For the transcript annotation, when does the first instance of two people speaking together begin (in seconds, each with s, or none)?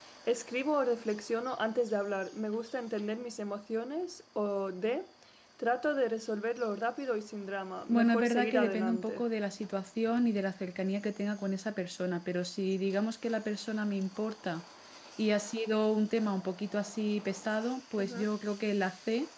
7.9 s